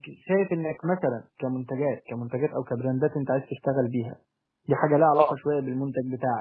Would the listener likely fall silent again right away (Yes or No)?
Yes